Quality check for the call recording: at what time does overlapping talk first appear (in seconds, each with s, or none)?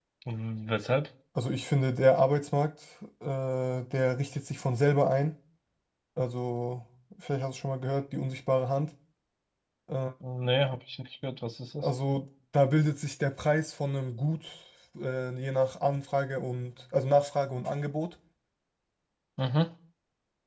none